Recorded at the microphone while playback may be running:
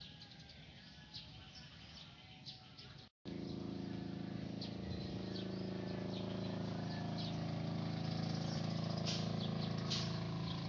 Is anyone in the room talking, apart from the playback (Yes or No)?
No